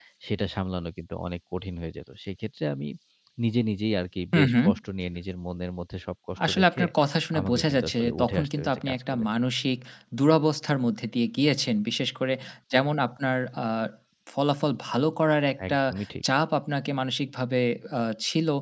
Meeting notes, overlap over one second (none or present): present